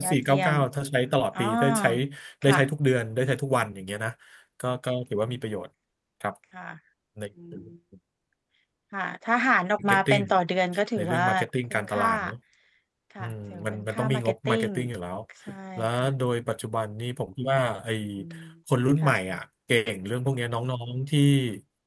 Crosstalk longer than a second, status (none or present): present